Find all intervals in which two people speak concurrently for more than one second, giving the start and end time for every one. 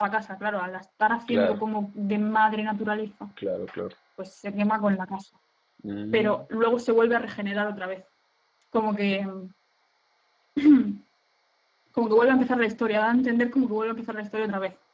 none

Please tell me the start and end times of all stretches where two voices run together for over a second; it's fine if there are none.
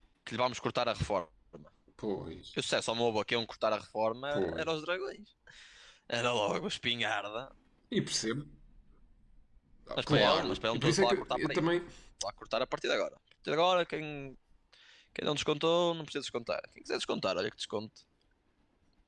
10.0-11.7

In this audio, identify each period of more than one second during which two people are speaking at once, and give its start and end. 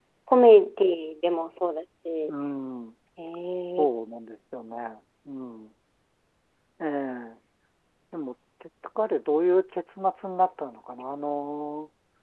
none

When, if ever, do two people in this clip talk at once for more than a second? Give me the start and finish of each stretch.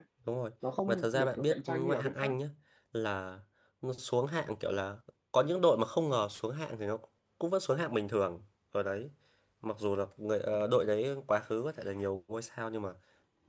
0.9-2.4

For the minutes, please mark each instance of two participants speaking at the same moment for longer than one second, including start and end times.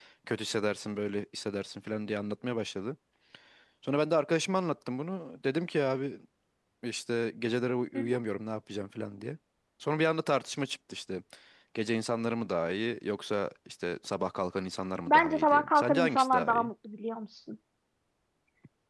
15.1-16.7

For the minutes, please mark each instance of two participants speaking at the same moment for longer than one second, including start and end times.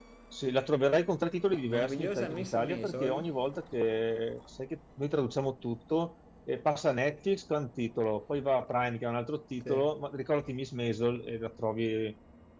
1.6-3.2

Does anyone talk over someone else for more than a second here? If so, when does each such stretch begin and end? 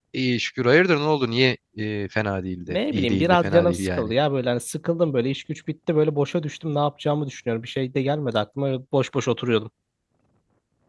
2.7-4.1

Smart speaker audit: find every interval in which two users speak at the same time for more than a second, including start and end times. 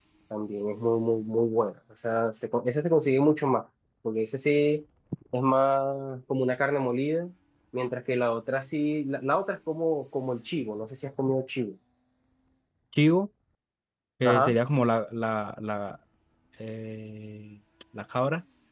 none

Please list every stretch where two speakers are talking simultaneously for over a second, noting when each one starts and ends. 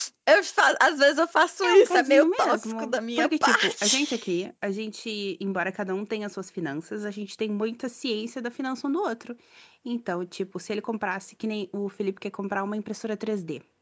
1.6-4.2

